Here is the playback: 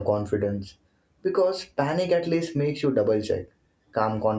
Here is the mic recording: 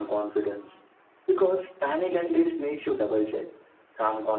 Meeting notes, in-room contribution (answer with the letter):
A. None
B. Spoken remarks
A